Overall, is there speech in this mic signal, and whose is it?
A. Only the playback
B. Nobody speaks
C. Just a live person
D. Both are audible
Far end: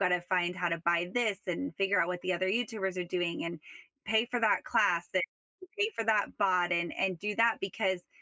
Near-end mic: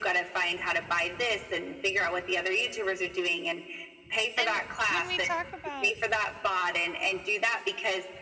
D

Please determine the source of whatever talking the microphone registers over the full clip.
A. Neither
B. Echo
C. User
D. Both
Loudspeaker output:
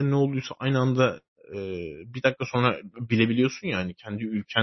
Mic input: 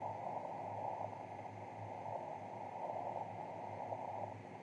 A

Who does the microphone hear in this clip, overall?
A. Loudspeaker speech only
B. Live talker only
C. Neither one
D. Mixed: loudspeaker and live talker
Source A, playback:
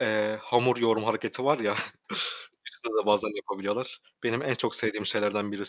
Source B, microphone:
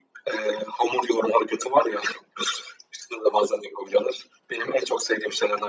A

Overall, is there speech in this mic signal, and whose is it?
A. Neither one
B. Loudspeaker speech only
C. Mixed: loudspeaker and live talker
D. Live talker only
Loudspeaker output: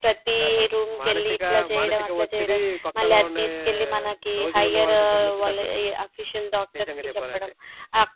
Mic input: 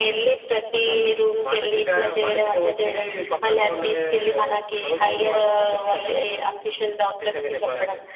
B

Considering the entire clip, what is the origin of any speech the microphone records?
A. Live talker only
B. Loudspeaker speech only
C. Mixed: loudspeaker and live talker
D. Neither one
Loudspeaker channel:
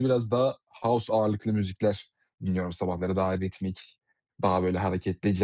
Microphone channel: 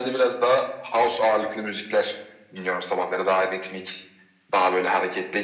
B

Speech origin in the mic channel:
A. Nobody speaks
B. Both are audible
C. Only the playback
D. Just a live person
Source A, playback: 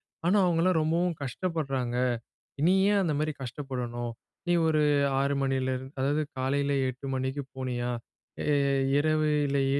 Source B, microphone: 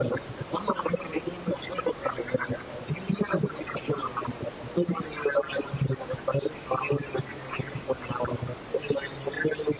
C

